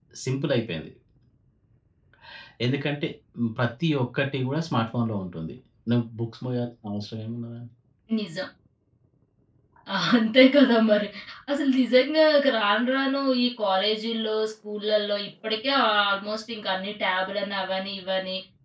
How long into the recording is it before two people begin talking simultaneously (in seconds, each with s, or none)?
none